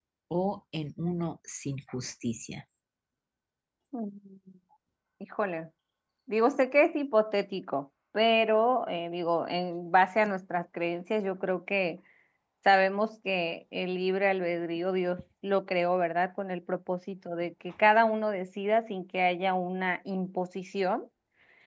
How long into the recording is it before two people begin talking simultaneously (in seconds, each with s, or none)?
none